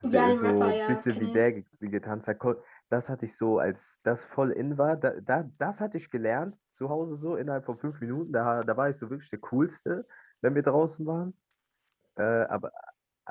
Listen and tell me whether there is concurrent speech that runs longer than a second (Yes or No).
Yes